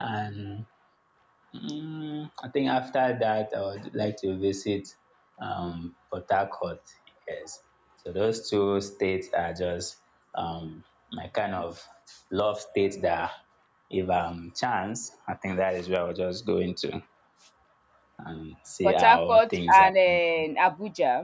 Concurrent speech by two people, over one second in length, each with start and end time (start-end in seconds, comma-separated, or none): 18.8-20.2